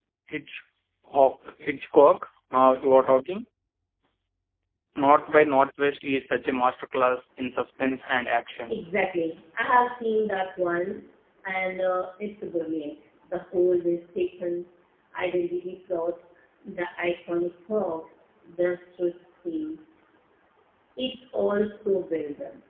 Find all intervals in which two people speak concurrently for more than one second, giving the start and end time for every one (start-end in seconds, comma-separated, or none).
none